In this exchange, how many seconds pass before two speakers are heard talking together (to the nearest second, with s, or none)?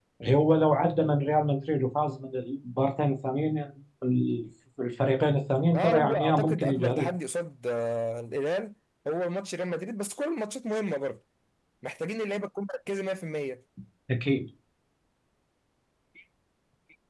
6 s